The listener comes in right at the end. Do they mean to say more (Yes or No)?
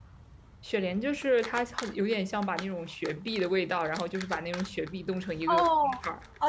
Yes